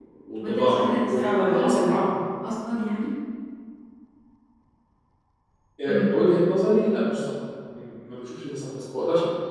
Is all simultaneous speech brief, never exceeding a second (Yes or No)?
No